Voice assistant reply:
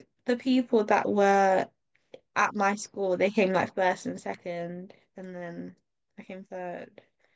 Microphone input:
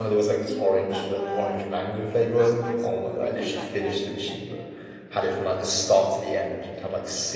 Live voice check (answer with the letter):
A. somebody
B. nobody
A